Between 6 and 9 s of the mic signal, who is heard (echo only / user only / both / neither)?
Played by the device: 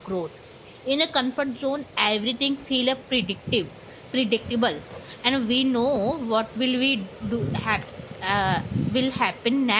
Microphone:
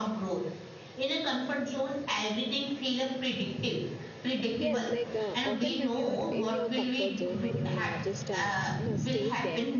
both